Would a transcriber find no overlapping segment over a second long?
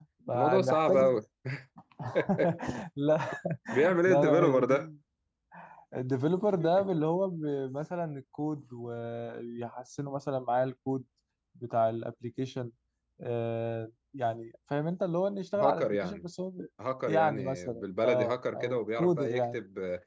No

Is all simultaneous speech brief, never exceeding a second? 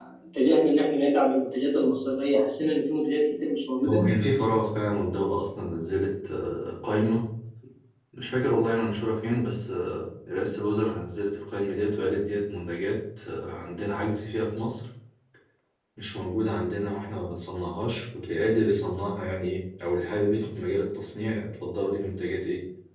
Yes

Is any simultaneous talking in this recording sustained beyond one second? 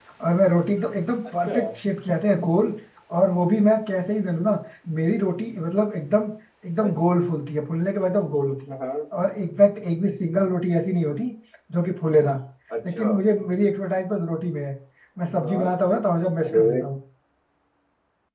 No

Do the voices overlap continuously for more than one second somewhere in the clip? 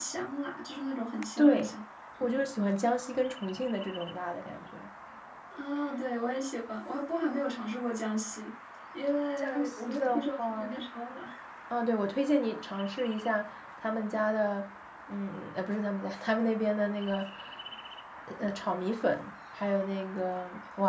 Yes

